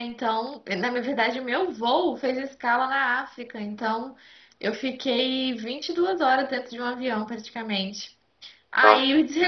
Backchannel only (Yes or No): Yes